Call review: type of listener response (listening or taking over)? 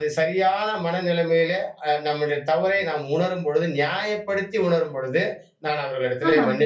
listening